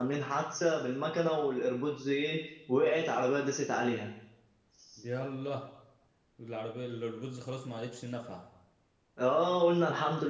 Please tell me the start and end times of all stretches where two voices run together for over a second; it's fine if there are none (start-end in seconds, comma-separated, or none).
none